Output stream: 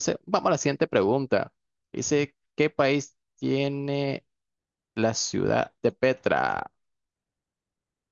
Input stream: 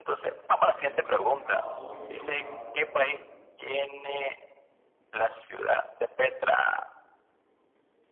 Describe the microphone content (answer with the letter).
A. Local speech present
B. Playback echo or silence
A